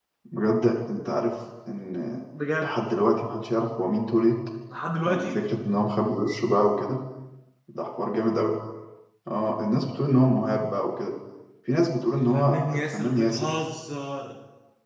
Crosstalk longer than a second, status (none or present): present